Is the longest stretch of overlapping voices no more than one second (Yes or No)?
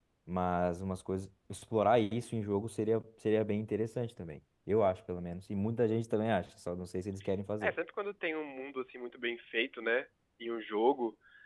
Yes